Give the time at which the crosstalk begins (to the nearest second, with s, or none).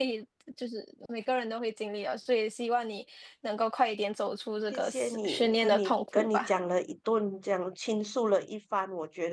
5 s